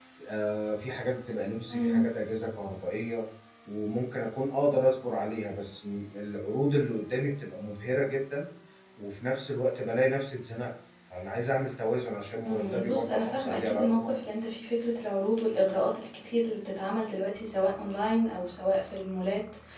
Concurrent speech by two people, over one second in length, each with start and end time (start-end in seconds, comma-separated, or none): 12.4-14.1